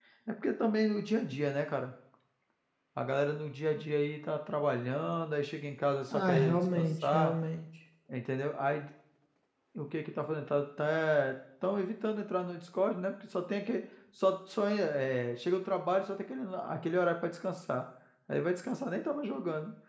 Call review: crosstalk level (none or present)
present